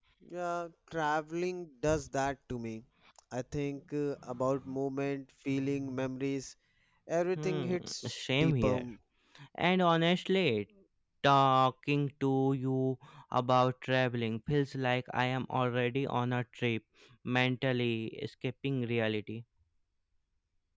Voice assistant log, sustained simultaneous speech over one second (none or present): present